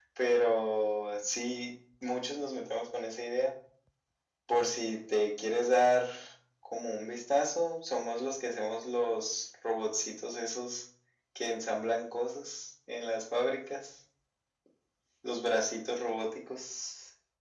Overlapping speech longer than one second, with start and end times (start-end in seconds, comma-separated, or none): none